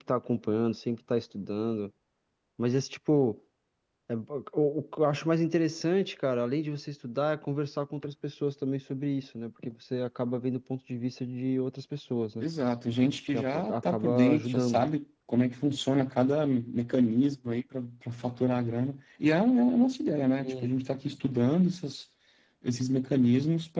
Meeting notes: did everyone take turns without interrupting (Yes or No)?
No